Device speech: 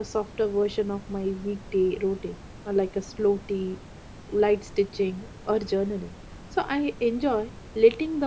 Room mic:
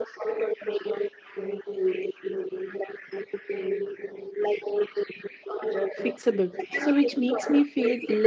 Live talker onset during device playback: 6 s

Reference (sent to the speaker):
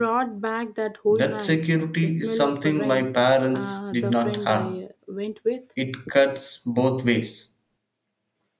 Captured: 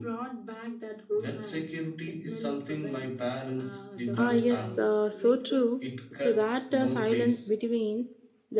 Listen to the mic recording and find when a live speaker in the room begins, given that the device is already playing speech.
4 s

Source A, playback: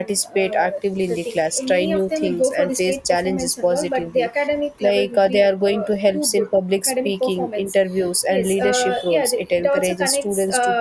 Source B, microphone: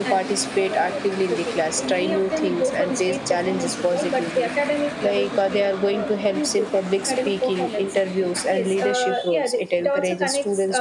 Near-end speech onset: none

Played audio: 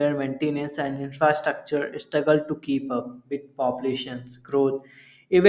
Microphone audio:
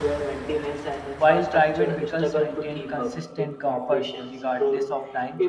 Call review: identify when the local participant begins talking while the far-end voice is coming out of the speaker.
1 s

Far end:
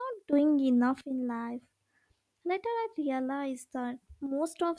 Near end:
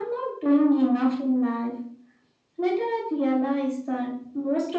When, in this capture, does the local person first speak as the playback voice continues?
none

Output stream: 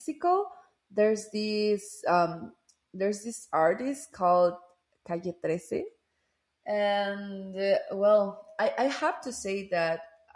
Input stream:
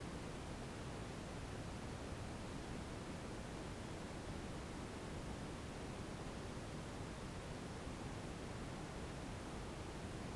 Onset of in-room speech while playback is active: none

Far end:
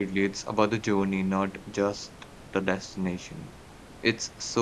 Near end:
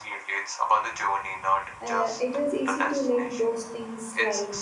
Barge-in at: 2 s

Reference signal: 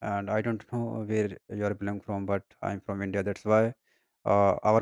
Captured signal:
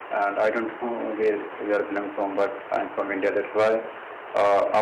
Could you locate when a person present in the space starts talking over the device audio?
none

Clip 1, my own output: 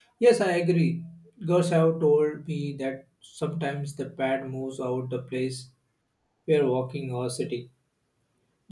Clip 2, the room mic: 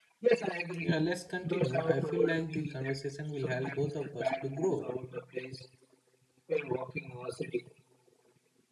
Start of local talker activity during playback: 1 s

